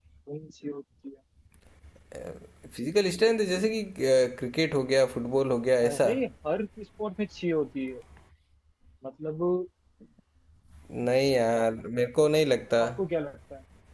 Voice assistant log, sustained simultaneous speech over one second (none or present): none